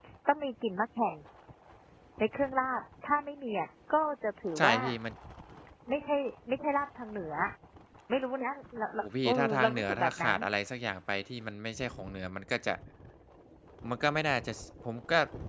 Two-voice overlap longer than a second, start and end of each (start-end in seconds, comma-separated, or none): 9.0-10.4